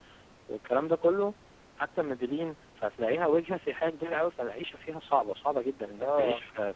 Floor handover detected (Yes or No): No